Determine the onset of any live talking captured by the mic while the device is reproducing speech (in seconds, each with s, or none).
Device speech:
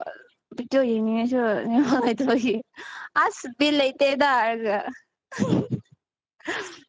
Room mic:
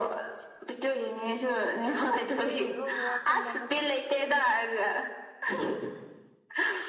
2.4 s